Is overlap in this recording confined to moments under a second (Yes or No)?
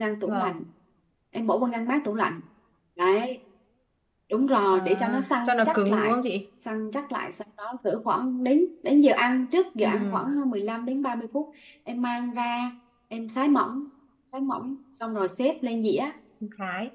No